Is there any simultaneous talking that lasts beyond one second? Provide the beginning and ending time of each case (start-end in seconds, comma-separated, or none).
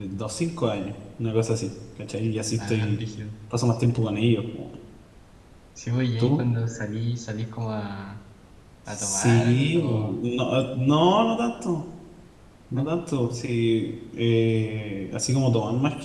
8.9-10.2